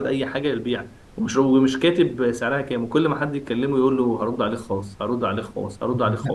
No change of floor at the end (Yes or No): No